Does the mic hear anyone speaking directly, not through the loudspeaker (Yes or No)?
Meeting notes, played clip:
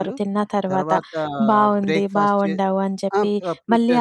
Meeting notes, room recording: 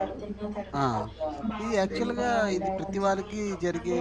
Yes